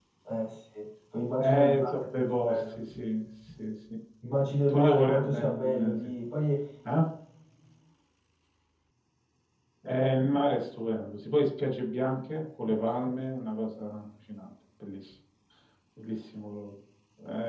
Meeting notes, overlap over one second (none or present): present